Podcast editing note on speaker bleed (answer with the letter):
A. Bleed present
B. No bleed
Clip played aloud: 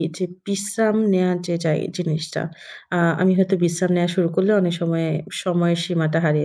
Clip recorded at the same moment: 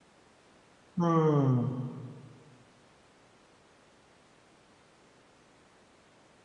B